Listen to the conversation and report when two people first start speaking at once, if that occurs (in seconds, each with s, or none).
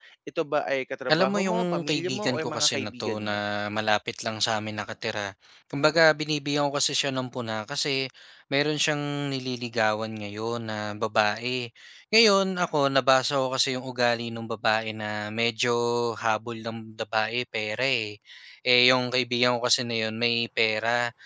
1.1 s